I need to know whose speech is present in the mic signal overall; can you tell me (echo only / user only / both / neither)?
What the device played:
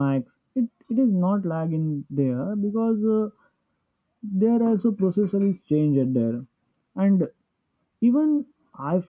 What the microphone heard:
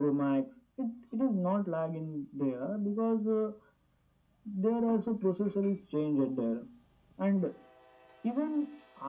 echo only